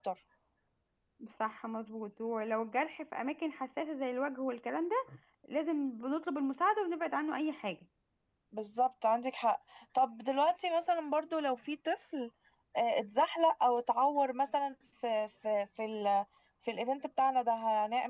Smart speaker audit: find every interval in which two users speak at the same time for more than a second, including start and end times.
none

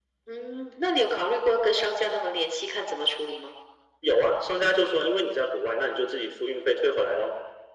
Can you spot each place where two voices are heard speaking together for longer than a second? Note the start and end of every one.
none

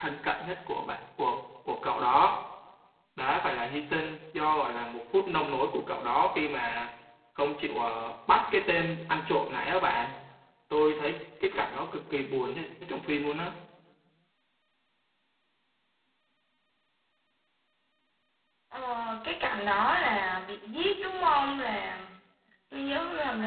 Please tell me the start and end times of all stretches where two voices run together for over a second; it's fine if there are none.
none

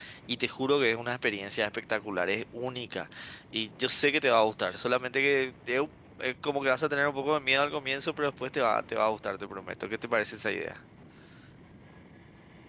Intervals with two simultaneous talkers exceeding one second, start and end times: none

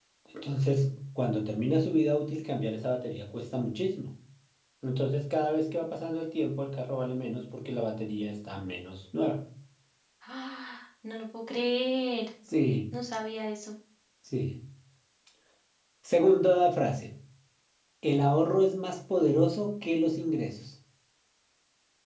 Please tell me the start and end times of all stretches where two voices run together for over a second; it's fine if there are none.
none

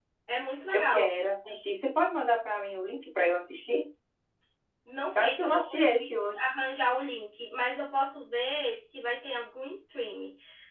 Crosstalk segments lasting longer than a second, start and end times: 5.2-6.4

